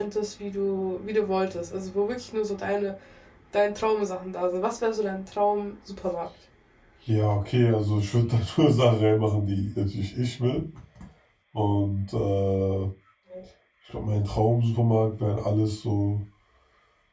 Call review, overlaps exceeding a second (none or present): none